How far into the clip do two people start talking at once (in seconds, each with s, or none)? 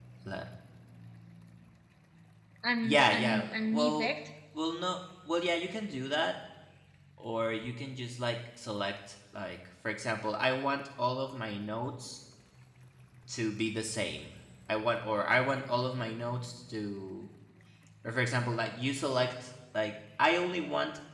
2.8 s